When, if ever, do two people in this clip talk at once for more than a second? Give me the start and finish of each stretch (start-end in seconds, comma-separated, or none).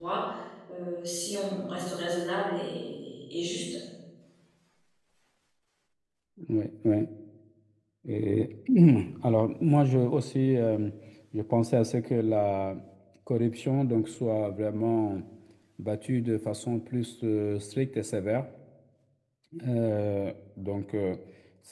none